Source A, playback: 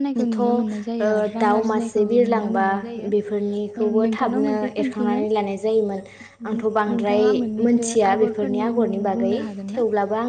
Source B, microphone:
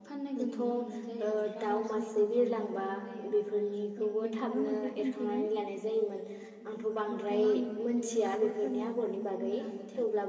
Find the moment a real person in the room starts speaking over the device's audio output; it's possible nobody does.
none

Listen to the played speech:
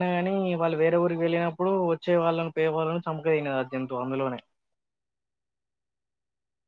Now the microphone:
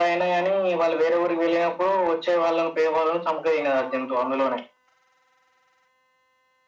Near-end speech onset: none

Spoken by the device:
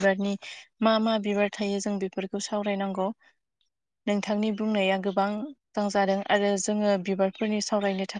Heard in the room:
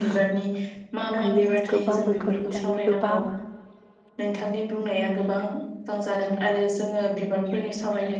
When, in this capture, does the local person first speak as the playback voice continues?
1 s

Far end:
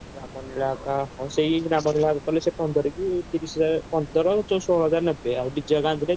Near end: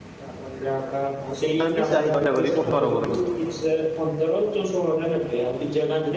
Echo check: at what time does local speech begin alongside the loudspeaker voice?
2 s

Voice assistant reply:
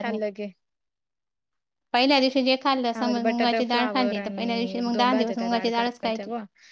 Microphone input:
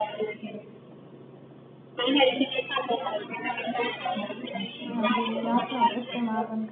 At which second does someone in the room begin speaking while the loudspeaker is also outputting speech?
5 s

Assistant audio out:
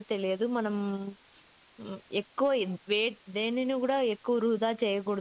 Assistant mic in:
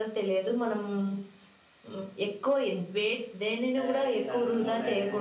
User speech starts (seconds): 4 s

